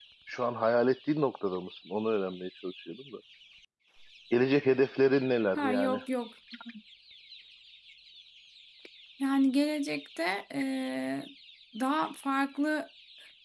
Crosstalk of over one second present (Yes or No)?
No